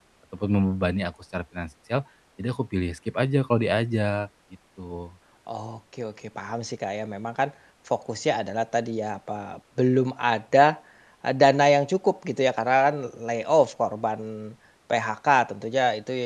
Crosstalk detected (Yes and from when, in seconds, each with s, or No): No